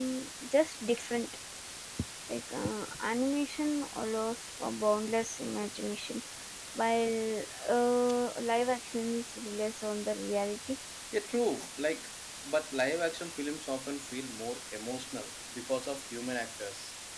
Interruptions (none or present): none